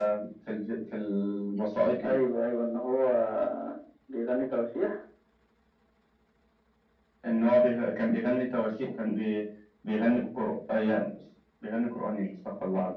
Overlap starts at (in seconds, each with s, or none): none